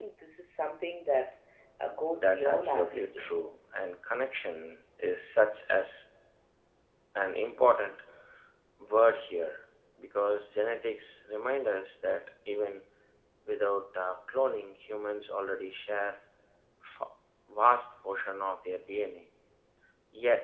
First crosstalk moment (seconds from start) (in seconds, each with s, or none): 2.1 s